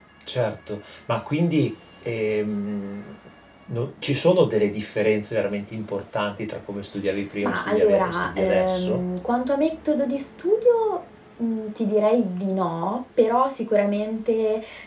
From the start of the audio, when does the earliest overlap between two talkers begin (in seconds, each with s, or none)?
7.4 s